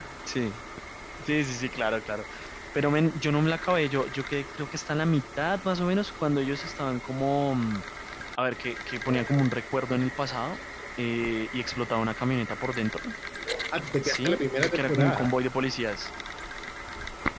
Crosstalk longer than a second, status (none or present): present